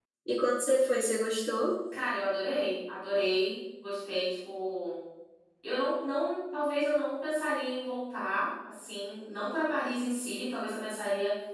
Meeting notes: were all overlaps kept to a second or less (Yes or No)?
Yes